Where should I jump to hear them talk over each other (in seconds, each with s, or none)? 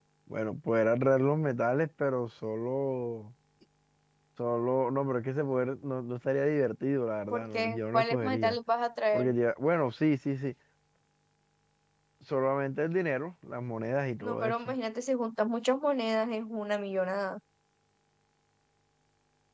7.3 s